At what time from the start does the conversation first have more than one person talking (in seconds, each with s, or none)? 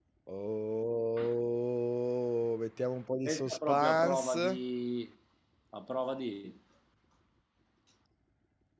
3.2 s